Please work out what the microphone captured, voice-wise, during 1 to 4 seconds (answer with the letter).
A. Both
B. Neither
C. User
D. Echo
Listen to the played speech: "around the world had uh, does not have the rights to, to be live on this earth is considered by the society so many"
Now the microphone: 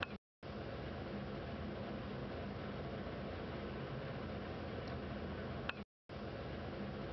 B